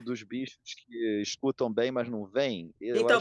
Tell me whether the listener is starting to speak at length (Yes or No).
Yes